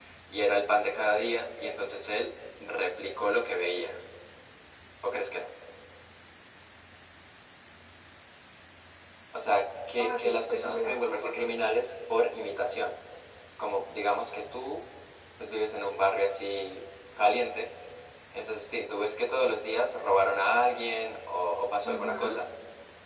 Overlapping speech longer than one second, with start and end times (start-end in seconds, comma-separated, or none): 10.0-11.3